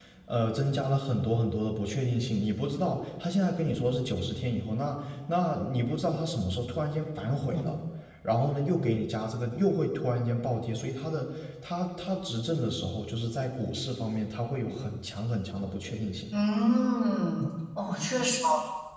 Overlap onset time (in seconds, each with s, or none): none